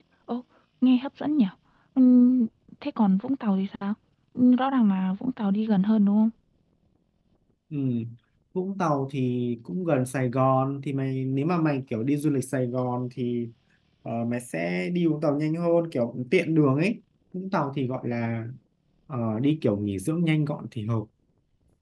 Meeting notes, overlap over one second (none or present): none